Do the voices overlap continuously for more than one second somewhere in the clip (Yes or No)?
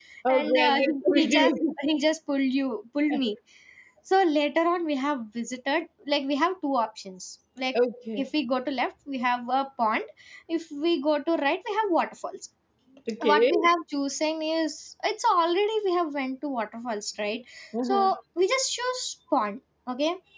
Yes